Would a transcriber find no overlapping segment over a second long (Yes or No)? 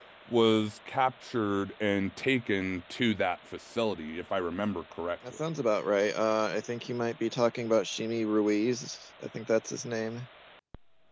Yes